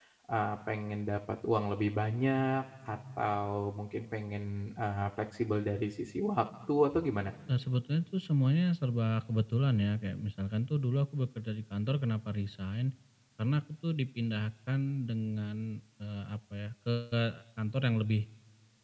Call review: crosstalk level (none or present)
none